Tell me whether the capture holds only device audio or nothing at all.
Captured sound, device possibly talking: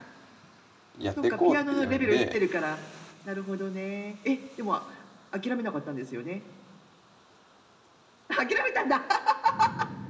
No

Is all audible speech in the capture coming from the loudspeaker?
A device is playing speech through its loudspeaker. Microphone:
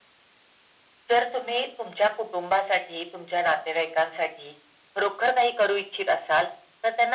Yes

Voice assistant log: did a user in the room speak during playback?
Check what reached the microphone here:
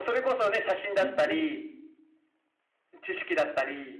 Yes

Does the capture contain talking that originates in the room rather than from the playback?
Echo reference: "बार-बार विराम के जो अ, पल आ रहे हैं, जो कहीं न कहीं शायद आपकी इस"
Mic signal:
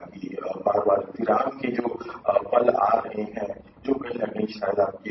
No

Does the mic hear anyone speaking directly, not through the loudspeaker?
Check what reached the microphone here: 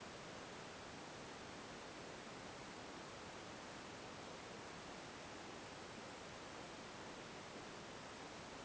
No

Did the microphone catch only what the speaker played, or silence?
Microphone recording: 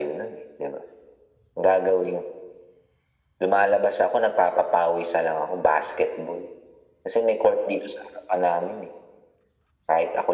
Yes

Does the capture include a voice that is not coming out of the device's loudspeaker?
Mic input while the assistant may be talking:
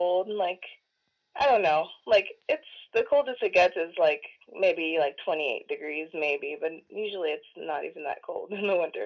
No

